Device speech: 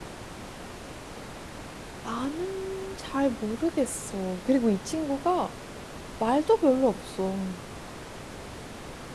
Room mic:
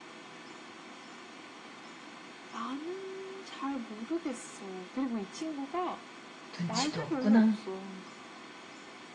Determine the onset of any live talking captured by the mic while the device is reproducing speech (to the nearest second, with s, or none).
7 s